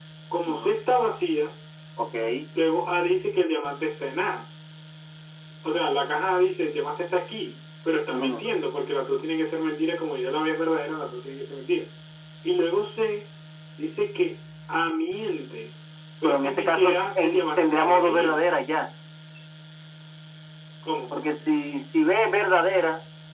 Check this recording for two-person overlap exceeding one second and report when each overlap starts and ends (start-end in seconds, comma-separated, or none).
16.2-18.4